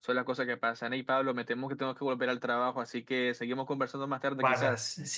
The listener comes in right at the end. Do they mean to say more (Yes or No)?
Yes